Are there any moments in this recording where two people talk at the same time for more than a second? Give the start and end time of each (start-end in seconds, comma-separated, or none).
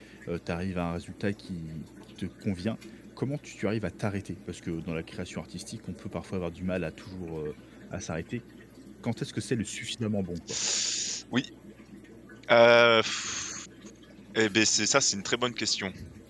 none